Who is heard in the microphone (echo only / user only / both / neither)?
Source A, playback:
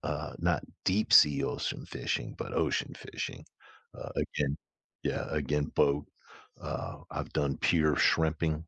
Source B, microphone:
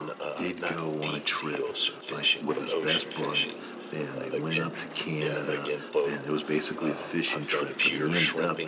both